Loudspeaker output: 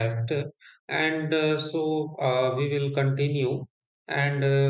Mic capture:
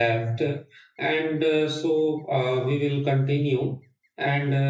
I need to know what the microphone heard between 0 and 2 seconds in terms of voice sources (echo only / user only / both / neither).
echo only